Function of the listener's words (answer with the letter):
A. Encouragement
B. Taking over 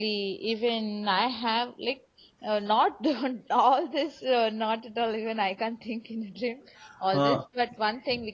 A